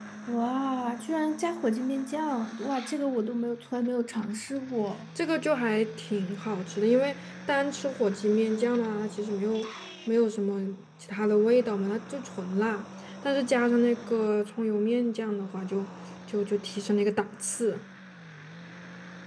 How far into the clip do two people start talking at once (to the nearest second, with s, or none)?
none